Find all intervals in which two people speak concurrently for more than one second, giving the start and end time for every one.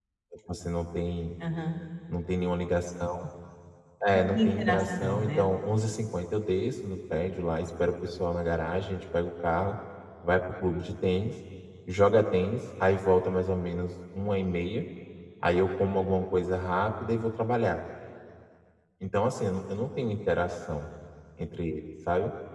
4.1-5.5

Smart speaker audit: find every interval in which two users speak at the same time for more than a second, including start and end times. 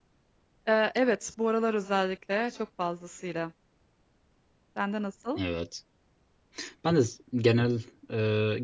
none

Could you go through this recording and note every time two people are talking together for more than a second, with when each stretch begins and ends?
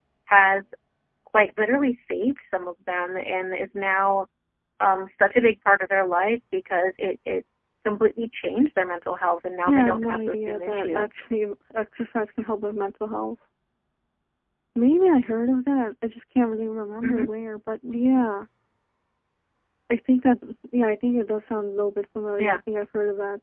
9.7-11.1

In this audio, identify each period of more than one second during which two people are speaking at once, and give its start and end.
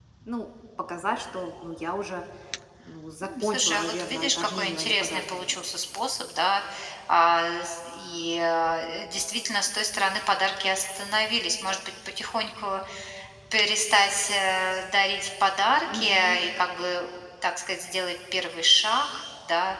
3.2-5.6

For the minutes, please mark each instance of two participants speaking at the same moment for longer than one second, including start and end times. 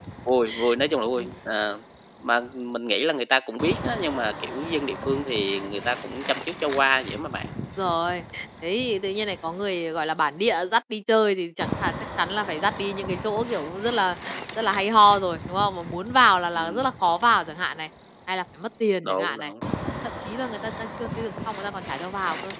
none

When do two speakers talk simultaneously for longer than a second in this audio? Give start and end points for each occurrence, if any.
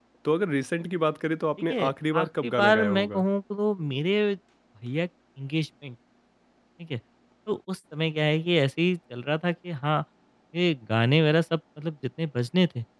1.7-3.2

